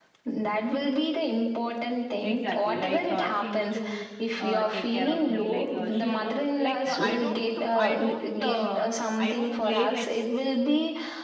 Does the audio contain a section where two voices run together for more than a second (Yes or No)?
Yes